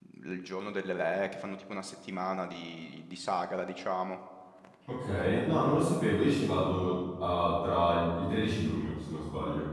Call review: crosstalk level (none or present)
none